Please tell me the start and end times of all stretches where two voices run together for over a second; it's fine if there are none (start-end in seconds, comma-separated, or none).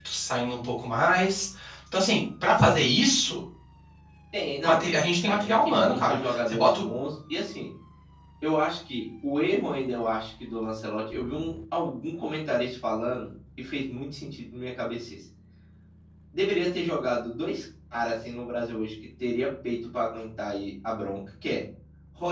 5.2-6.8